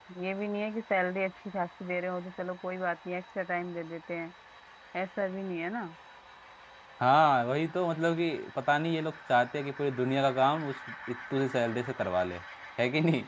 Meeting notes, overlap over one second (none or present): none